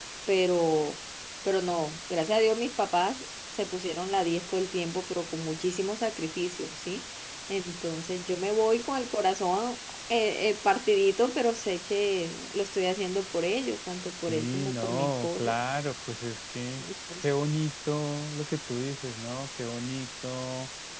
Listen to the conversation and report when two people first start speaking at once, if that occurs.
14.3 s

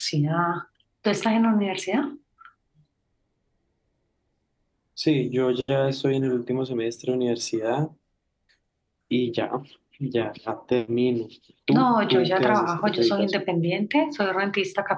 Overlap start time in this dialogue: 11.7 s

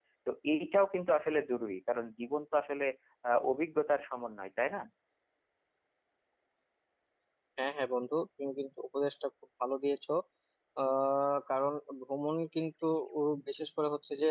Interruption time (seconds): none

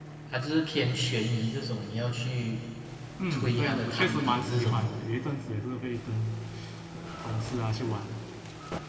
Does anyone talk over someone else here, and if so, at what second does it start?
3.3 s

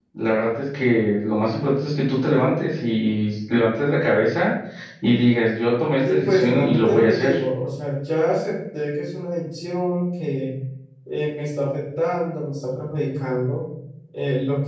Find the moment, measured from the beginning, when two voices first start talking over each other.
6.0 s

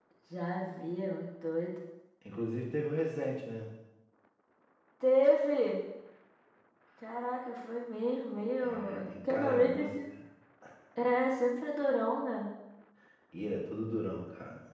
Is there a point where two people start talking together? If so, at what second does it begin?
8.6 s

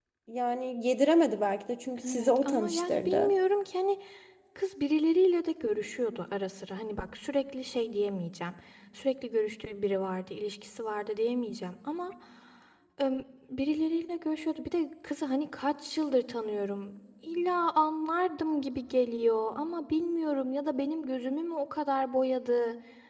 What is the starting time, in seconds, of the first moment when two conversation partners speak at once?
2.0 s

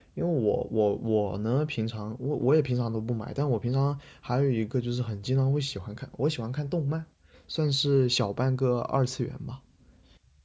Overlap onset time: none

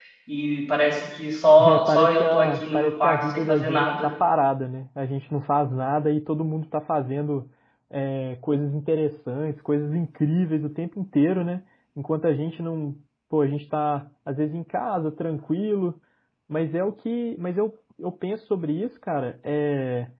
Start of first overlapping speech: 1.6 s

